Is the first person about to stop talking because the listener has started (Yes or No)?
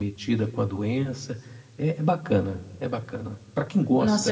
Yes